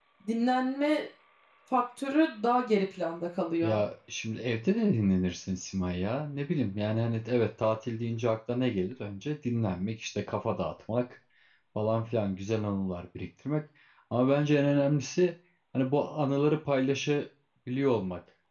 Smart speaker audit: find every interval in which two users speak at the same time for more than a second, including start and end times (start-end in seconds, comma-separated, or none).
none